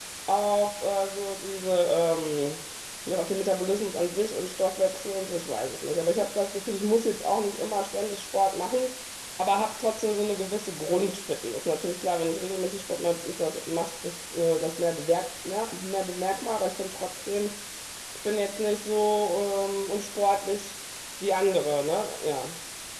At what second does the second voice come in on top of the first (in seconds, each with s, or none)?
none